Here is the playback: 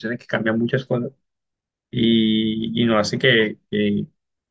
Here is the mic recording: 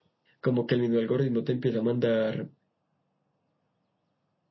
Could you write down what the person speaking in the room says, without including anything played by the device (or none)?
como que el mismo algoritmo te empieza a mandar